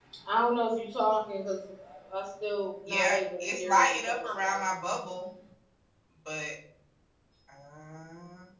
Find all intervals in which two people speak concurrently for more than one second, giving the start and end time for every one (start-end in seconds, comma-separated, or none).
2.9-4.5